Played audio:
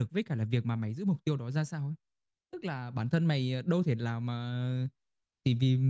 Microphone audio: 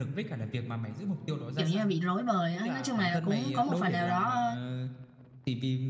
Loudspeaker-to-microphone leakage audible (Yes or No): Yes